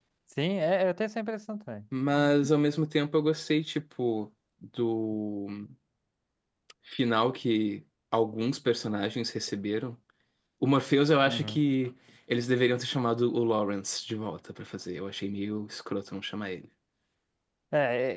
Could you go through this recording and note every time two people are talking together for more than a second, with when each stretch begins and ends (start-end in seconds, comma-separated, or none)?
none